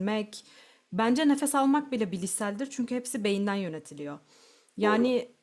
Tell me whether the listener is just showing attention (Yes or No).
Yes